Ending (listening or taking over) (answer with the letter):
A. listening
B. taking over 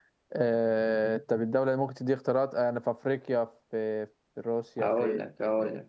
B